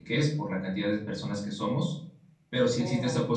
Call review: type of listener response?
listening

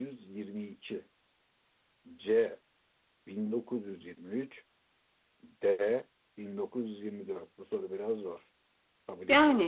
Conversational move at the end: taking over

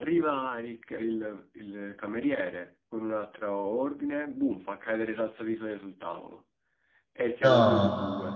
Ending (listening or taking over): listening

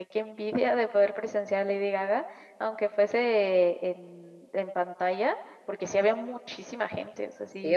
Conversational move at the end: taking over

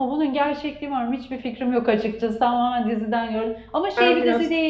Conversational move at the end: listening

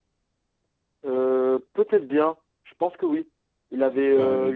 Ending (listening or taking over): listening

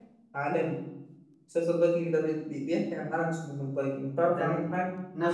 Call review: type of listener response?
taking over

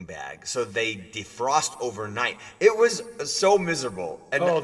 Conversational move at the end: taking over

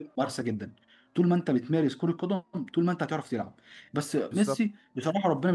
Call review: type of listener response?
listening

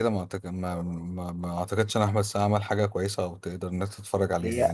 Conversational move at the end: taking over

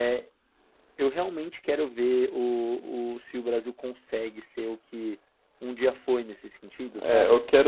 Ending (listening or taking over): taking over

